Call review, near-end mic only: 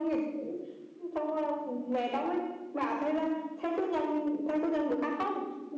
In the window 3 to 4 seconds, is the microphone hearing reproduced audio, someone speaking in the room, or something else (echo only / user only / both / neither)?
echo only